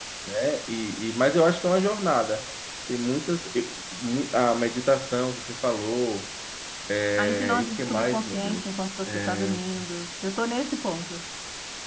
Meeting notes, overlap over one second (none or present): present